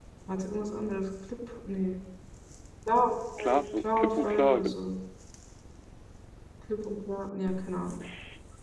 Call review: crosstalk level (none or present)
present